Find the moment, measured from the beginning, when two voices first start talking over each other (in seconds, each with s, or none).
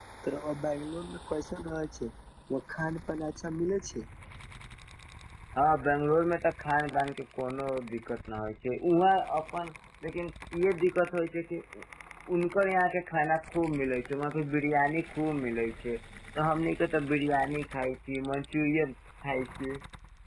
none